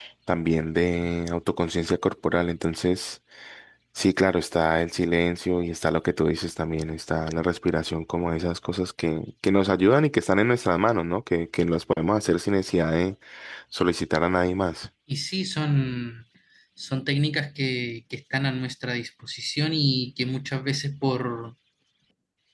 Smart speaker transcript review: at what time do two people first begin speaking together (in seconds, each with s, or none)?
none